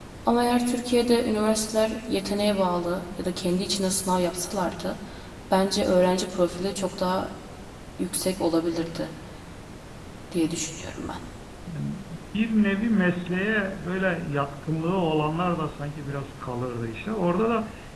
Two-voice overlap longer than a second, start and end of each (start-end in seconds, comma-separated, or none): none